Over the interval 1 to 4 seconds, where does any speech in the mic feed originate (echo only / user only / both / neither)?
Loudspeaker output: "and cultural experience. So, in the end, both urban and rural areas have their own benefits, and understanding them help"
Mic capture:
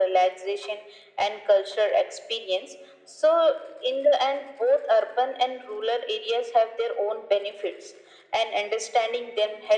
echo only